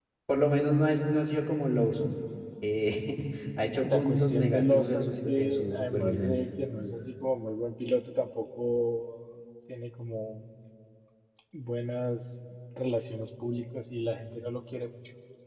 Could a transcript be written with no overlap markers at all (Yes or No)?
No